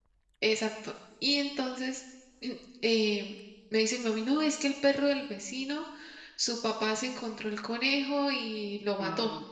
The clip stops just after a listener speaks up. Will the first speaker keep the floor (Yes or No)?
Yes